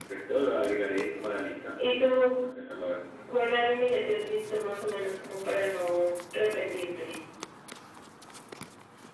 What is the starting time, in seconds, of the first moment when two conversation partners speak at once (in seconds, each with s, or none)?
none